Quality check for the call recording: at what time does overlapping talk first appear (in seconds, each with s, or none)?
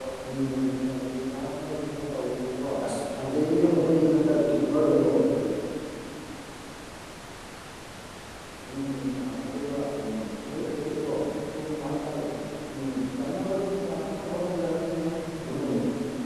3.7 s